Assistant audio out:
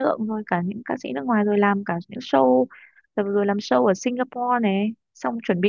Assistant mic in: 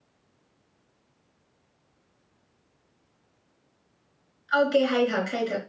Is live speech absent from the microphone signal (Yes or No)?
No